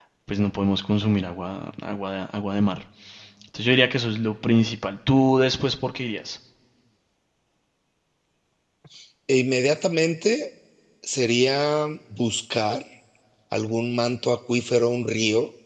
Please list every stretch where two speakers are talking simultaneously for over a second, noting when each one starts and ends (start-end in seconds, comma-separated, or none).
none